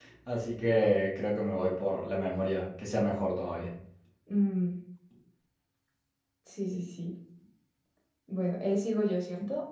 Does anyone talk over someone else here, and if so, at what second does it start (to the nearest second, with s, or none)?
none